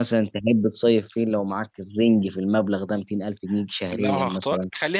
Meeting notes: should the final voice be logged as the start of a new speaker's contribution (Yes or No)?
Yes